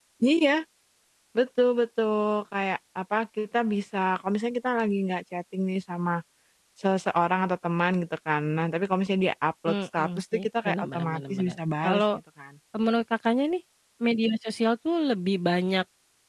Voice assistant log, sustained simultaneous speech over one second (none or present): present